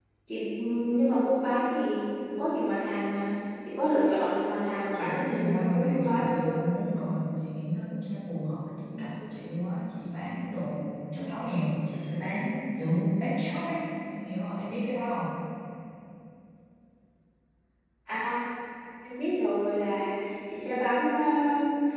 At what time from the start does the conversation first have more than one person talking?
4.9 s

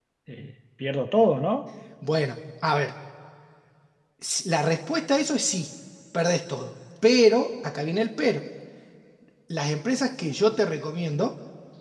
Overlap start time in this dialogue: none

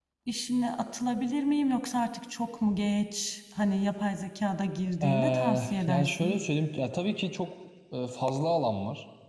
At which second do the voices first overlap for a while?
5.0 s

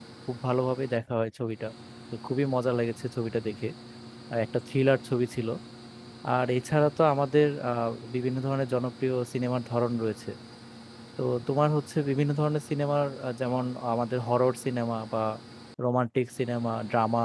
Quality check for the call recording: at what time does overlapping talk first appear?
none

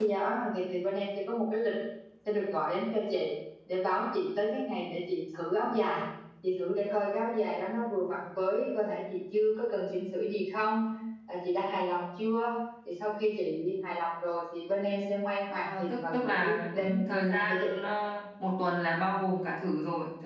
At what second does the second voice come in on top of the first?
15.5 s

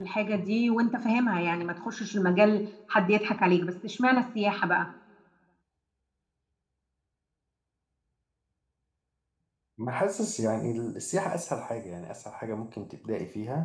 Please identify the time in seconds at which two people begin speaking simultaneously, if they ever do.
none

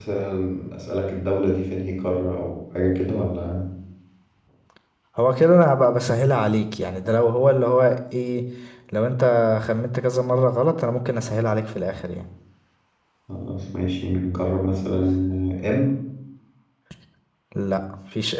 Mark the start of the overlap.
none

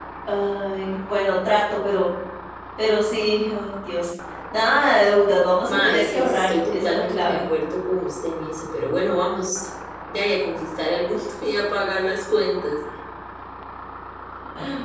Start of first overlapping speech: 5.6 s

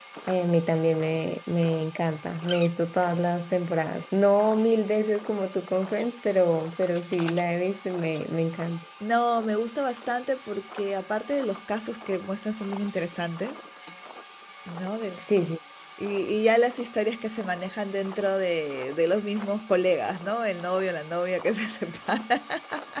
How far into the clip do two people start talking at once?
none

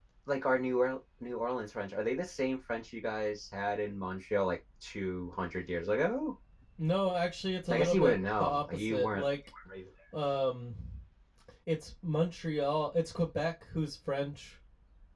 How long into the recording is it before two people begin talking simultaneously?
7.7 s

